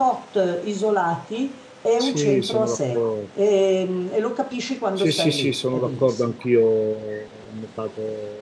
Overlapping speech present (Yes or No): Yes